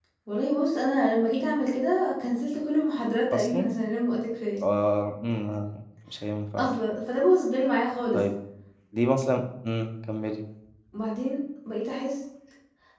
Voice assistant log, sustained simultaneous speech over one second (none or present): none